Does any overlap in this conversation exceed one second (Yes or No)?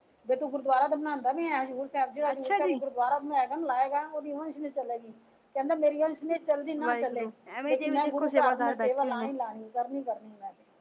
Yes